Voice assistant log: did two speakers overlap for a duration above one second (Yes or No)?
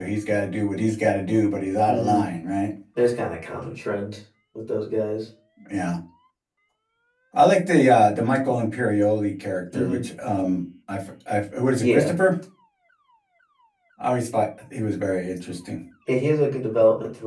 No